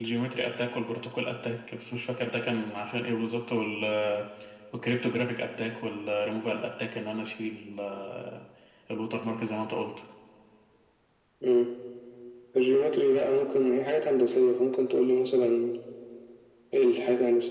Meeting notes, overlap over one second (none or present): none